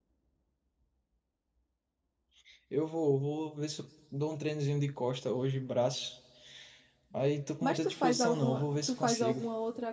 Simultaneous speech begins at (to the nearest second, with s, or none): 8 s